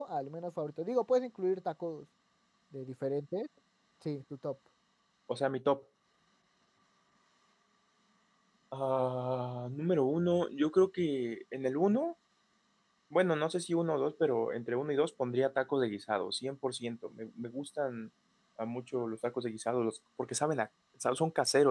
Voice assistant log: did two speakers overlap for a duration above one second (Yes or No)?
No